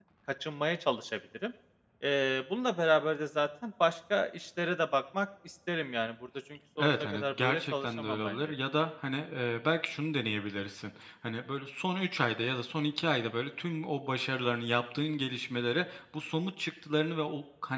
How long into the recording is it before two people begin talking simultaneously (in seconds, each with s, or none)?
6.8 s